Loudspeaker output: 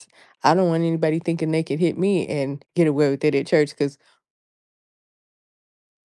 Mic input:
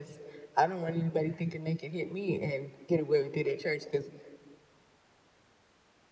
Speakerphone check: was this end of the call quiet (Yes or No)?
Yes